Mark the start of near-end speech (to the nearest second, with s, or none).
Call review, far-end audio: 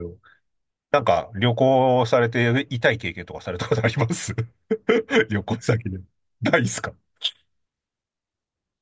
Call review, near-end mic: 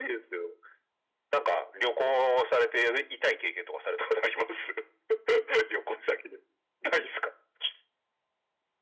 none